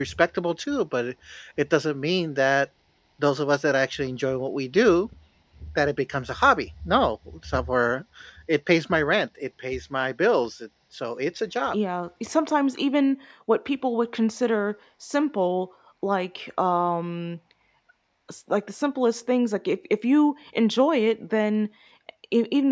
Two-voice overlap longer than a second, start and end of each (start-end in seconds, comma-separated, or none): none